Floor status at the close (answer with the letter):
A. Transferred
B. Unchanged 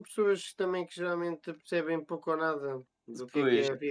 B